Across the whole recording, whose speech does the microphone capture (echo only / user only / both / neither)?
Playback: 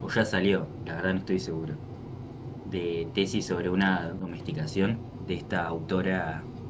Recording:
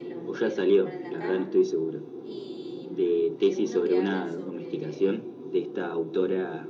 both